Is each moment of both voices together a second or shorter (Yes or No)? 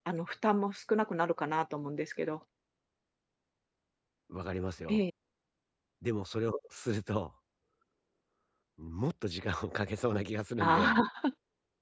Yes